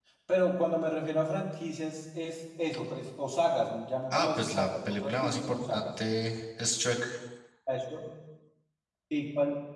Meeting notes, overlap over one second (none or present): present